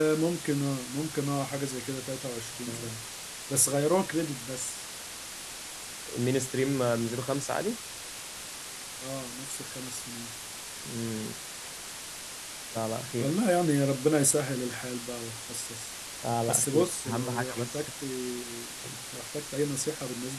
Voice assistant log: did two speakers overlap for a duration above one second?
Yes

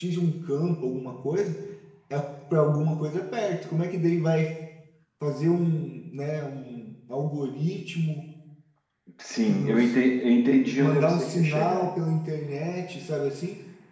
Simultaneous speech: Yes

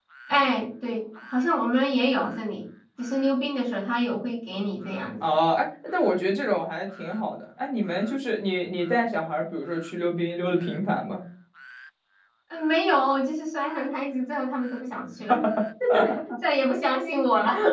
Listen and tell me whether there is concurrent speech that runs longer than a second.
No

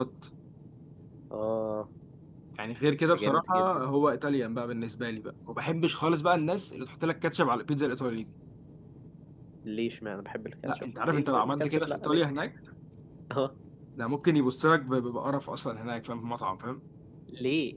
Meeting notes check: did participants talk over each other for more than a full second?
Yes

